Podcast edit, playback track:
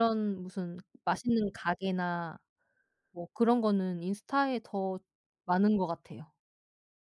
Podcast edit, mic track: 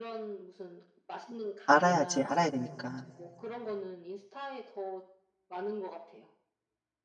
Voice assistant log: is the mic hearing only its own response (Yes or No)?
No